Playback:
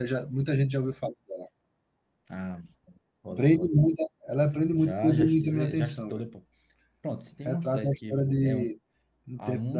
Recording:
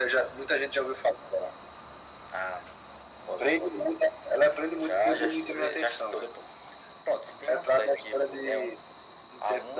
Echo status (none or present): present